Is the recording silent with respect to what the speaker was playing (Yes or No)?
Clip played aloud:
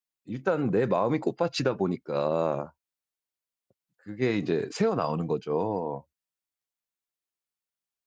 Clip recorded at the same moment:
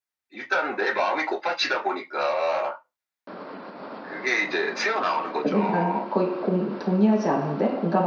No